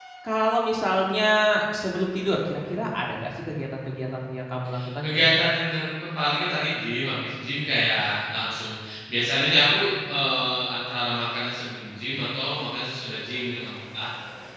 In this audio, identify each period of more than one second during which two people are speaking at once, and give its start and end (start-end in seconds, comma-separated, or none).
none